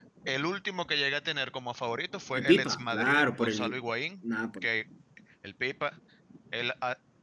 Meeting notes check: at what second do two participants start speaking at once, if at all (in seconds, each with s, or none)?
2.4 s